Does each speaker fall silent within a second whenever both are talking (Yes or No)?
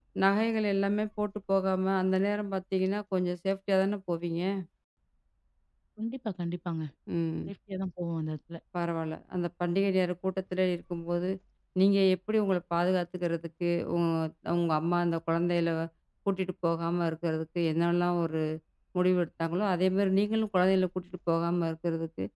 Yes